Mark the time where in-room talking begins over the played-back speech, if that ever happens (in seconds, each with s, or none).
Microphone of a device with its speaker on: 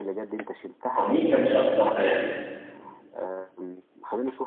1.0 s